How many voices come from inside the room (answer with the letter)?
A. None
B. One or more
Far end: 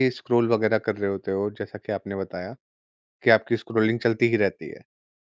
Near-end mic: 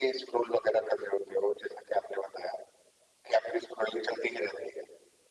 A